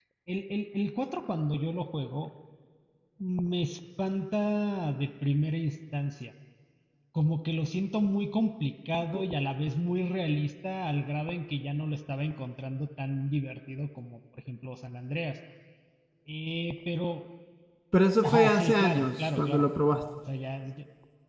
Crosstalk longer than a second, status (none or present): present